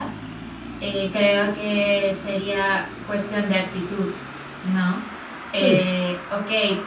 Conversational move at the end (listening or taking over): listening